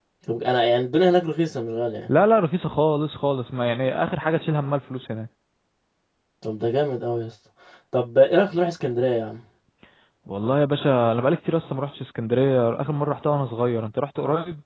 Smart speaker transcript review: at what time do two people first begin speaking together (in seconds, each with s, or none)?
none